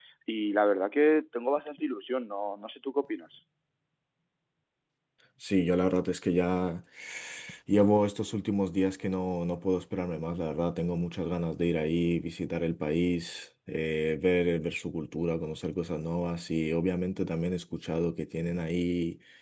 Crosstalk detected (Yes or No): No